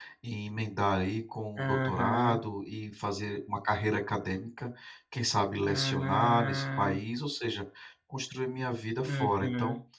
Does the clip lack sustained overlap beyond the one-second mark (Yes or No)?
No